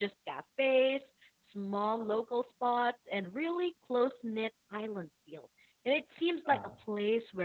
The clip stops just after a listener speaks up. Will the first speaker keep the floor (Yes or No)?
Yes